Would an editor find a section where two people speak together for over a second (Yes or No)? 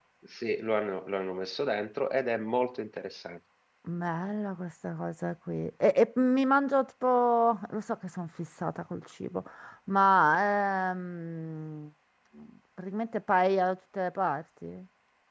No